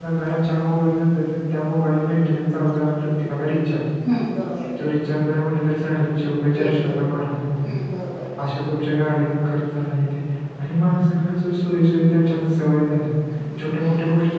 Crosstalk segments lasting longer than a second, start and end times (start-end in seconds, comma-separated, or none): none